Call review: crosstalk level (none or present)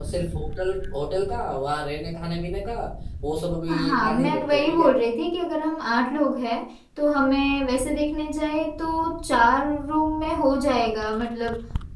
present